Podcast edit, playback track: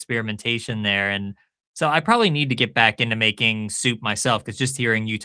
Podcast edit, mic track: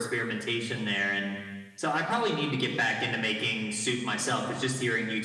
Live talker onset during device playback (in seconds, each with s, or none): none